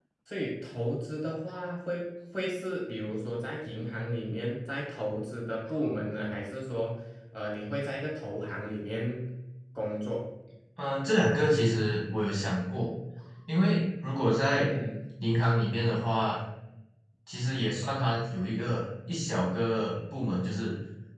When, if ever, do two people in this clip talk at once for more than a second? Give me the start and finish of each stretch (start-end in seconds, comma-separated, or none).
none